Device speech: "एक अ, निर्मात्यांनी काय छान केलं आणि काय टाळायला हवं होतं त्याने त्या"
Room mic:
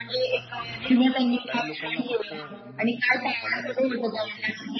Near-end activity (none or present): present